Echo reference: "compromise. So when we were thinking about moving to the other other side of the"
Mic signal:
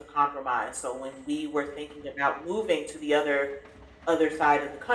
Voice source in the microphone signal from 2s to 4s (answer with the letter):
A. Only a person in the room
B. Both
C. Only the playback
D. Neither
C